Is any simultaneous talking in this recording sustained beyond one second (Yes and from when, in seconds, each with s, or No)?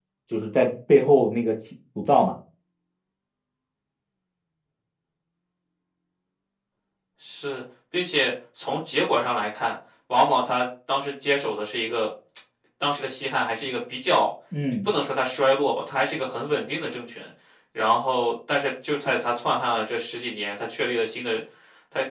No